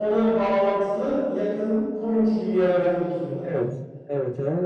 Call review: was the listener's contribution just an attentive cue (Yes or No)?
No